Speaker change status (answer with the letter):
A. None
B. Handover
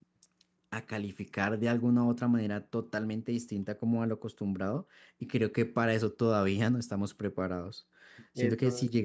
A